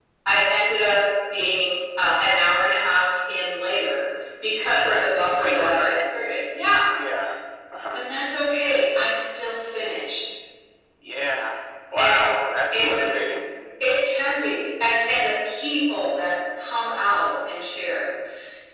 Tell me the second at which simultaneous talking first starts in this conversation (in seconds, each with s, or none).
4.8 s